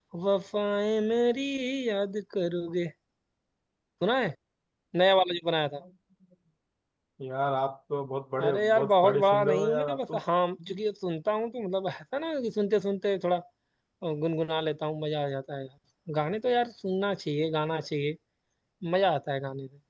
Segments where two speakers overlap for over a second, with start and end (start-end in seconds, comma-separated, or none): 8.4-10.0